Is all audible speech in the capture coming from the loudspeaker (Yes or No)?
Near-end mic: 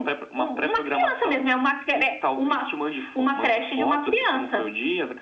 Yes